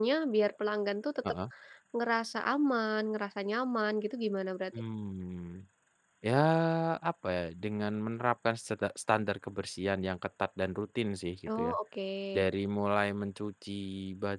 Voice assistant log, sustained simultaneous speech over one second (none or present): none